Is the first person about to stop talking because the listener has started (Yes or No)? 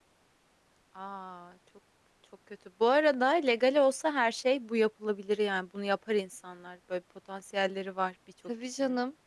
Yes